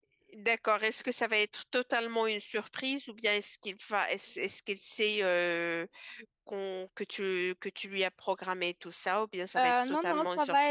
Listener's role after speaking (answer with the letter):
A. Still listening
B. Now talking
B